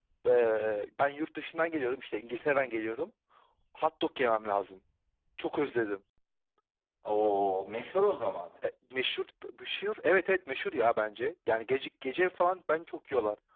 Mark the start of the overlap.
none

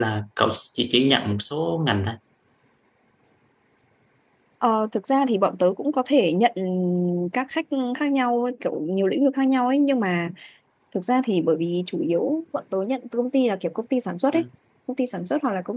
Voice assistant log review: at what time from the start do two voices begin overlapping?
none

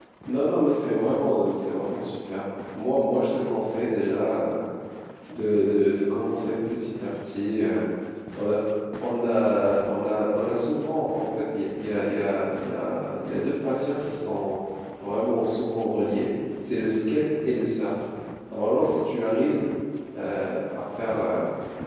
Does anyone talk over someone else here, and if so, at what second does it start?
none

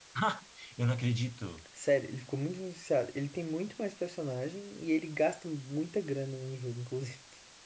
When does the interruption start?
none

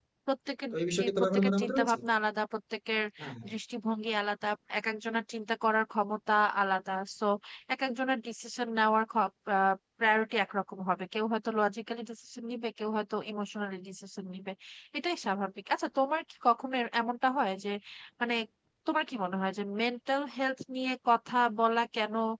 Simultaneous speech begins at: 0.7 s

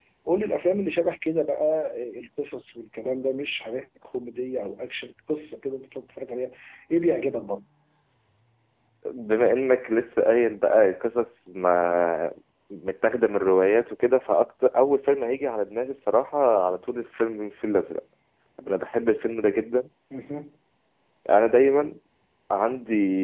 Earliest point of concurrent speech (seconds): none

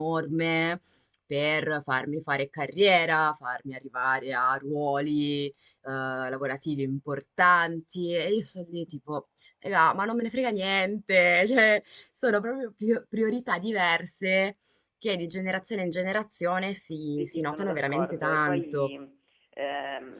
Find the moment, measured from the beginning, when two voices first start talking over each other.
17.2 s

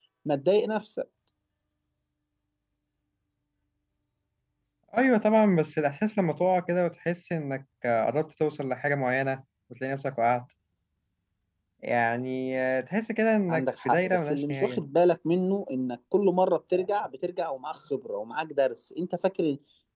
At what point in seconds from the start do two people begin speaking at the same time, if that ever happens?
13.5 s

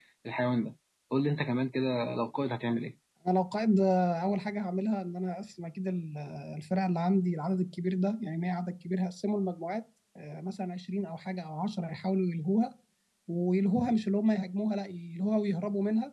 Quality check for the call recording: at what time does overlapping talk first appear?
none

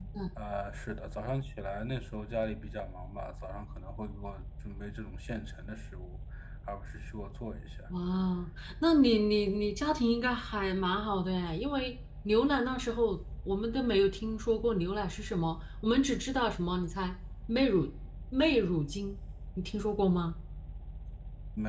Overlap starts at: none

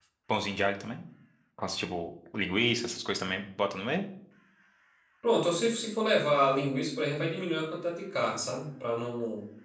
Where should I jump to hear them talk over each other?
none

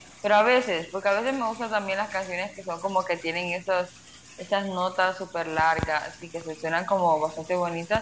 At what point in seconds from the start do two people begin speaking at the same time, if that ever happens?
none

